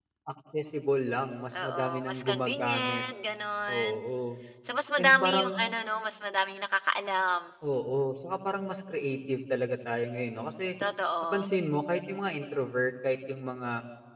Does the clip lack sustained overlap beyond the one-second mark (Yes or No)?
No